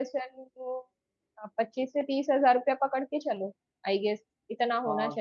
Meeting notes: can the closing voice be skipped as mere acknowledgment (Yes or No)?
No